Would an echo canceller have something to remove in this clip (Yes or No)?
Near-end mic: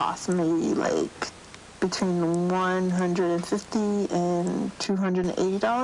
Yes